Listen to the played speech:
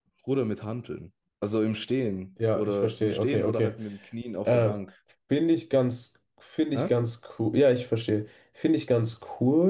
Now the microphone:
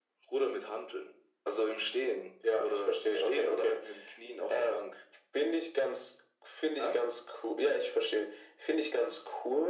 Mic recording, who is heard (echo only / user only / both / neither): echo only